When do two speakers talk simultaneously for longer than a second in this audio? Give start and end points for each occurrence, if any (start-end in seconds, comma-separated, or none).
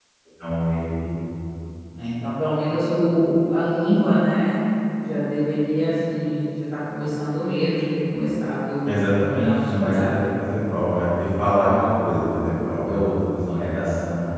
8.8-10.2